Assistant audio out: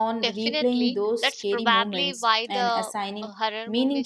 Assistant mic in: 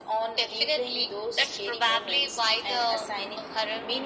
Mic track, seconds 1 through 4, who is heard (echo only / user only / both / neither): echo only